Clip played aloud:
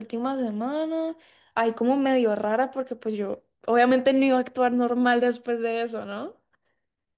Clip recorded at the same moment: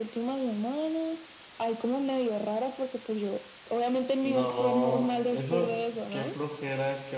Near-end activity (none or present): present